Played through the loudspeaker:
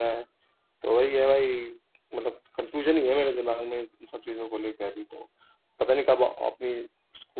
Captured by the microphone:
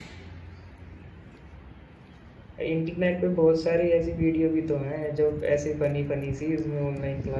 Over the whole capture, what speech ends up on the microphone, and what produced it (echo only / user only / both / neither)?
user only